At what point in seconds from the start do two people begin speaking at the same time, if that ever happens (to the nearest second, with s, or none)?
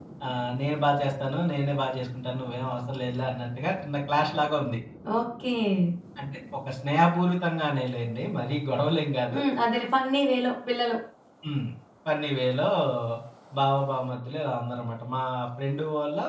none